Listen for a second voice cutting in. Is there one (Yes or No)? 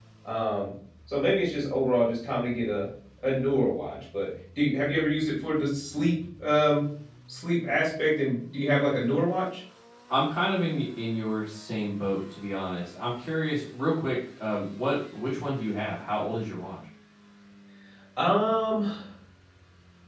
No